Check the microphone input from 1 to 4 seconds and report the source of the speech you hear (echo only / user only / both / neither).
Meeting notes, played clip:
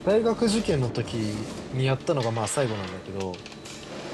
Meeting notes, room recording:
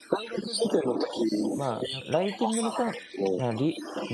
both